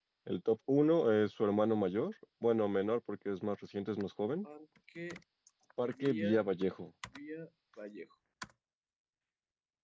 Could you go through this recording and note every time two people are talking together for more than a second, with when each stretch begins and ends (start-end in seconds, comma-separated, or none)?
none